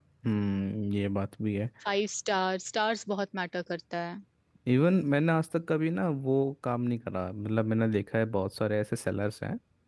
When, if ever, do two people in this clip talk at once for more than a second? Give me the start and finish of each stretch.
none

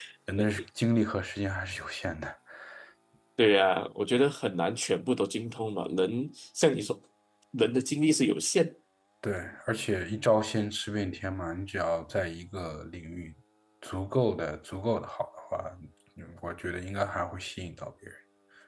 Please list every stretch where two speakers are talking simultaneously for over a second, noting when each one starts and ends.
none

